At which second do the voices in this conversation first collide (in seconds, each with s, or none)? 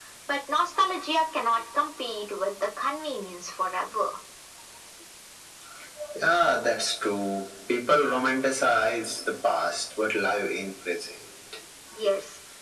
none